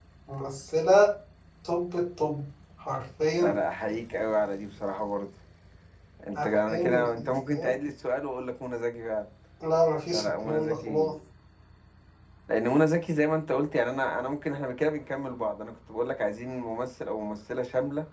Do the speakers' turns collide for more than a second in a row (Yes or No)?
Yes